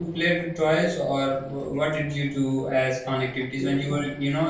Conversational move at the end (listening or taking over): listening